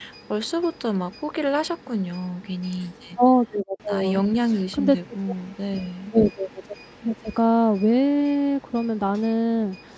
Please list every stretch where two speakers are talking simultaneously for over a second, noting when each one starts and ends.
none

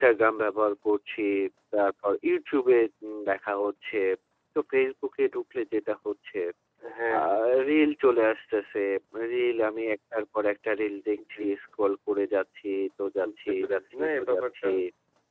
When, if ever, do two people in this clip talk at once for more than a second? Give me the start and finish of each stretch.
13.2-14.7

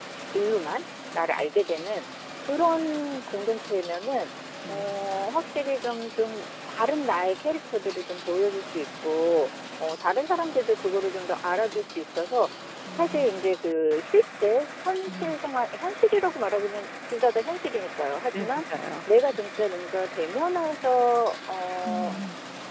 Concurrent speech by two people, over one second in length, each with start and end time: none

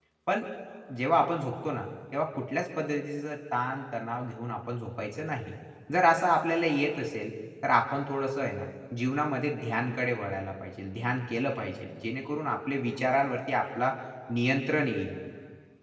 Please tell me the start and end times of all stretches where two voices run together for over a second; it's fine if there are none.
none

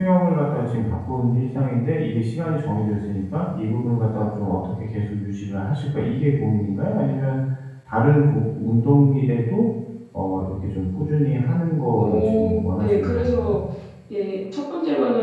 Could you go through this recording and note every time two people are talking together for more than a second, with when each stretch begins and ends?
12.0-13.6

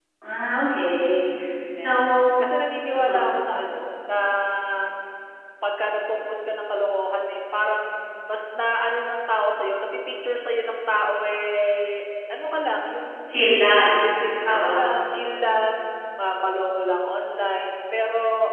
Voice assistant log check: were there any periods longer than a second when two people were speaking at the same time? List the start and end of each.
none

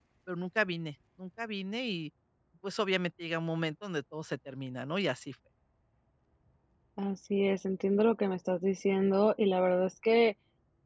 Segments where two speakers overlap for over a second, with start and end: none

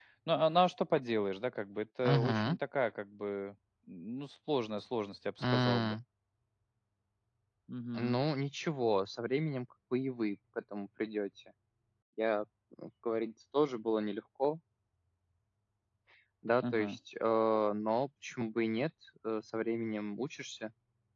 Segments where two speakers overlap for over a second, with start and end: none

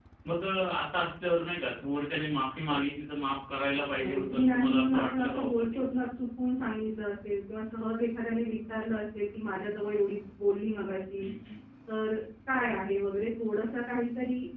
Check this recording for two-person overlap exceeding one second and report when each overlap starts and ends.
3.7-5.8

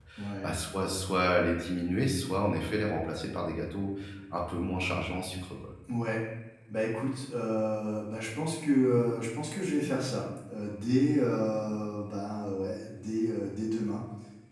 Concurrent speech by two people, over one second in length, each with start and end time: none

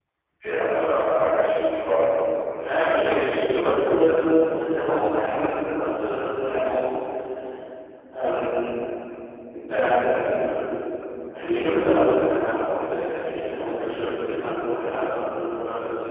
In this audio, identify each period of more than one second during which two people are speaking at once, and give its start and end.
2.6-4.3

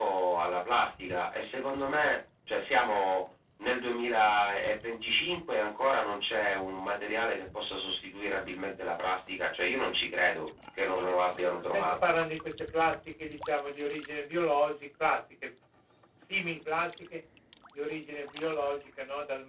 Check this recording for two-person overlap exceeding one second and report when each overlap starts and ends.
none

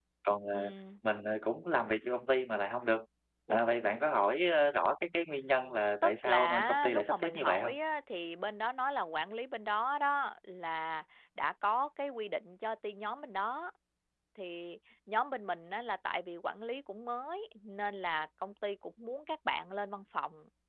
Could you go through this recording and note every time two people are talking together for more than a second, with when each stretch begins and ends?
6.0-7.7

